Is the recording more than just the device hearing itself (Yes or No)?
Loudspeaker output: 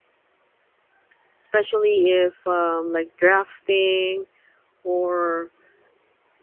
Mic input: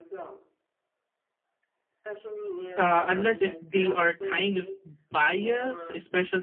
Yes